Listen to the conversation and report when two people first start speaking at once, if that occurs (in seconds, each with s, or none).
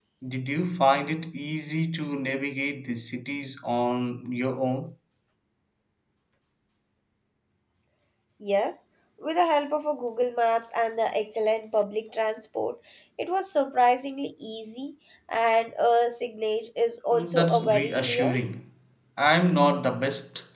17.1 s